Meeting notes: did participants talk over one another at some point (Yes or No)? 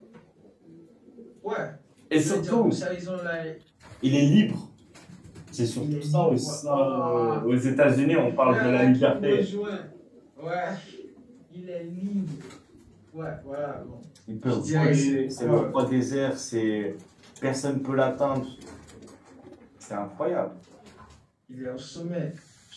Yes